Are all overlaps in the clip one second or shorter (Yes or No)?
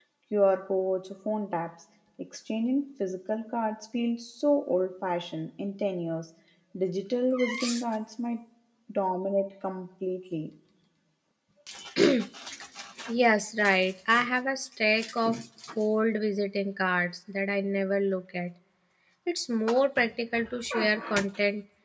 Yes